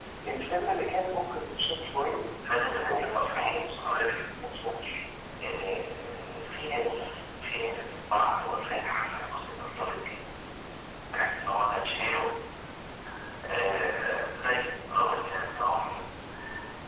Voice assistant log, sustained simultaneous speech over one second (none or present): present